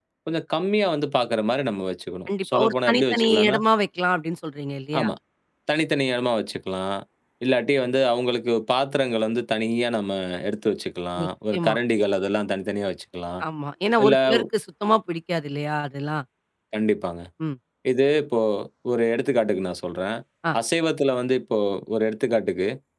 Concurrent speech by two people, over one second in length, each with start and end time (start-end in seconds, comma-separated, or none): 2.3-3.6